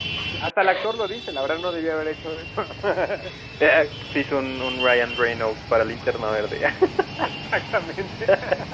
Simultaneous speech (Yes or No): No